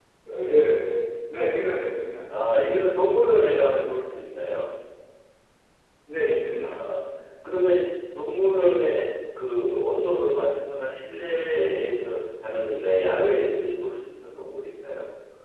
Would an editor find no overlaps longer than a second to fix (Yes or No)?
Yes